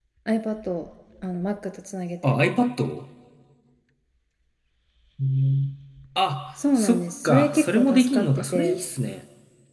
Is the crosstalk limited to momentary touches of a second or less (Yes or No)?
No